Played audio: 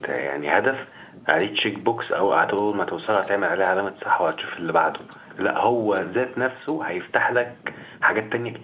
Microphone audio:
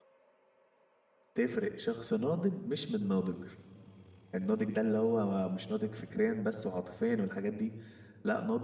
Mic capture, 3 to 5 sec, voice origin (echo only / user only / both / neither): user only